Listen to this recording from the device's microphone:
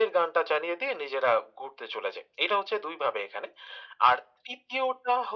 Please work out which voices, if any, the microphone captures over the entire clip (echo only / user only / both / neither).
echo only